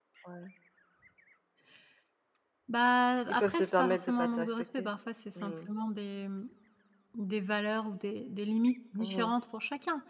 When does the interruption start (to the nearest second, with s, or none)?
3 s